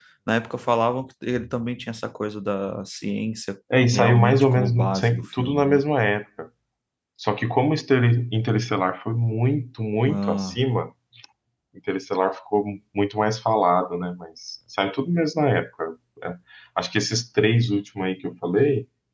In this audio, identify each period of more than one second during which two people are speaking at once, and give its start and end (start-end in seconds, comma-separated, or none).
3.9-5.8